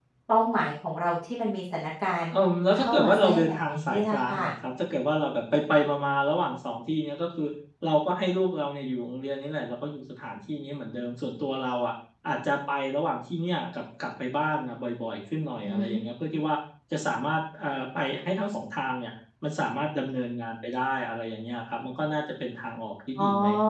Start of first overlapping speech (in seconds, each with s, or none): 2.7 s